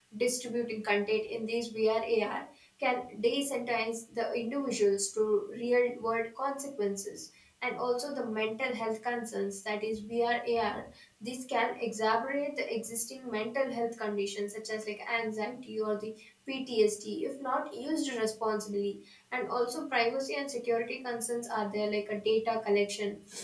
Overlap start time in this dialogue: none

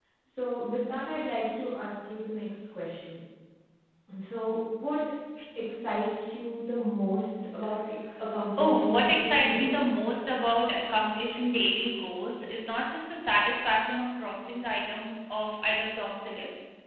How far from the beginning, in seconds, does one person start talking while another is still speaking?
8.3 s

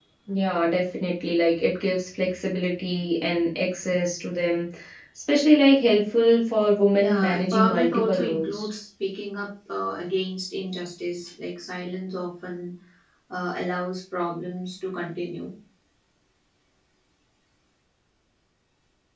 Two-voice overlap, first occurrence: 7.0 s

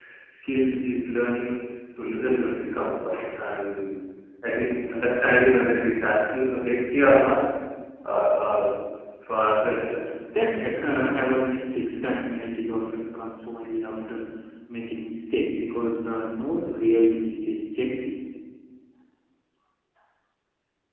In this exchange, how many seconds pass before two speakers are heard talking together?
none

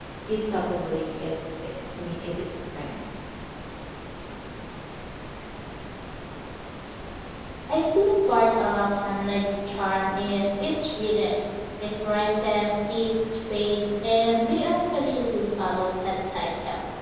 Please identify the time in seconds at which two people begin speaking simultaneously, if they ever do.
none

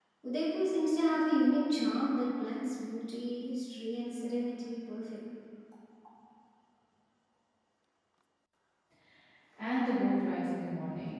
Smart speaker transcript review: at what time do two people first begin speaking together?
none

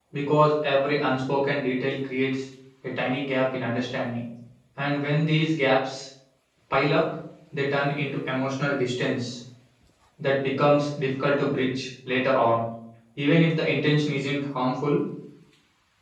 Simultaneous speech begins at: none

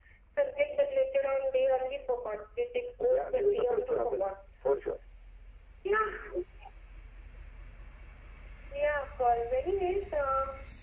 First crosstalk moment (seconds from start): 3.0 s

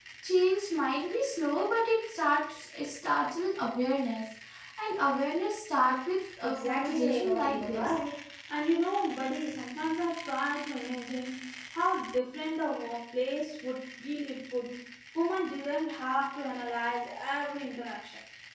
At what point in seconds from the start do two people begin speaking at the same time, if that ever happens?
6.4 s

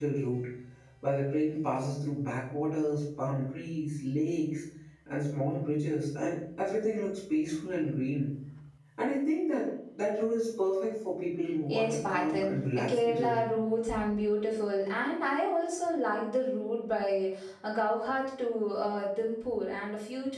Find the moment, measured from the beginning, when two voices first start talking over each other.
11.7 s

